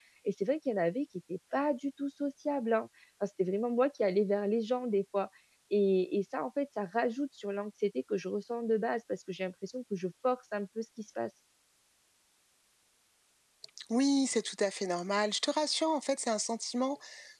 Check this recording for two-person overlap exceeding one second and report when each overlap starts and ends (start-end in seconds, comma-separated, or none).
none